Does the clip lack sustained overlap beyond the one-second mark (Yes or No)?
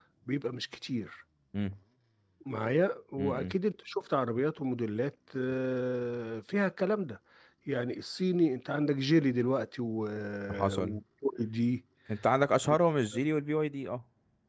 Yes